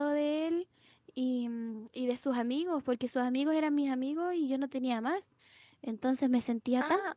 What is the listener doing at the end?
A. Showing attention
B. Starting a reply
B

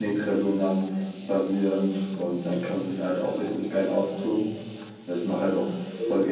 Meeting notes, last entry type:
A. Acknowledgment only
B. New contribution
A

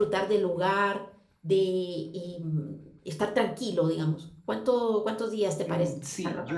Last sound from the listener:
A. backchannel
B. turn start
B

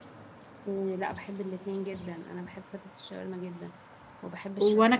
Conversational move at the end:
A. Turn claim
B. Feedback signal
A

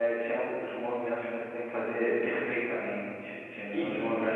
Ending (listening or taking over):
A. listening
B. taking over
A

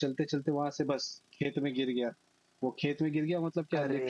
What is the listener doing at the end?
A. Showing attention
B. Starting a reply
A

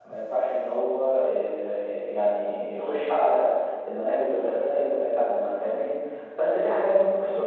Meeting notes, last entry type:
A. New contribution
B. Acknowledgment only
B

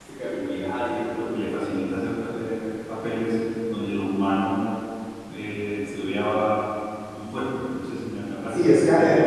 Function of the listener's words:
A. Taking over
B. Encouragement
A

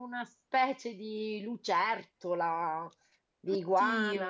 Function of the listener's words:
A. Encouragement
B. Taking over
A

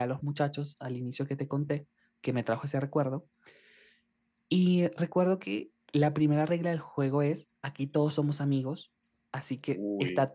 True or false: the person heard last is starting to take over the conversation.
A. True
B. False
B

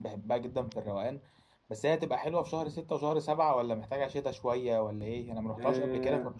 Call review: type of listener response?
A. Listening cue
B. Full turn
B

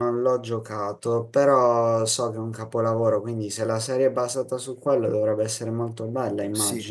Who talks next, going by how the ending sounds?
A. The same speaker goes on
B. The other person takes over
B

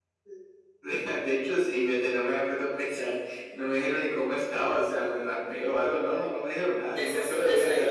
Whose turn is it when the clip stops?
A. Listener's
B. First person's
A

